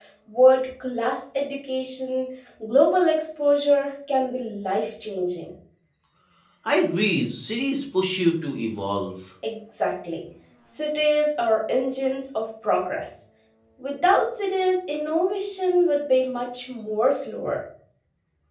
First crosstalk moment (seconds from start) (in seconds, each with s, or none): none